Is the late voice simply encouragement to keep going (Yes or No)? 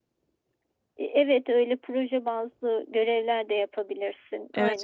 No